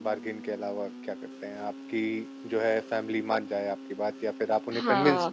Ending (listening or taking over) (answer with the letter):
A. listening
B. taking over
B